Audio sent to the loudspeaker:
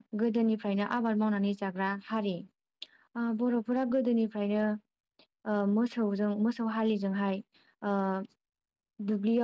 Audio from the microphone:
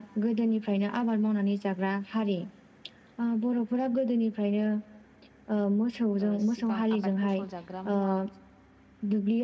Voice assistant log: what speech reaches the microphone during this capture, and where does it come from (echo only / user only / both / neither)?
both